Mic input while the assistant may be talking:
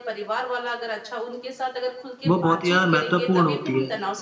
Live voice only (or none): वो बहुत ही ज़्यादा महत्वपूर्ण होती है।